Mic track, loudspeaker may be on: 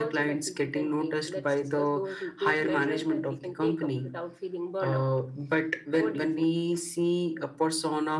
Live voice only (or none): none